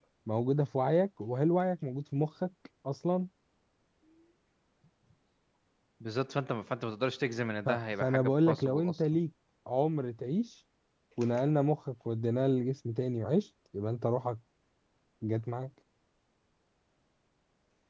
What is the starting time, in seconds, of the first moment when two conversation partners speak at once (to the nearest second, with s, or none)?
8 s